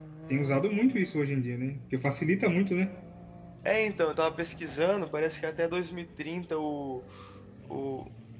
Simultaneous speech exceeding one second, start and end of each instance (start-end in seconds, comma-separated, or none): none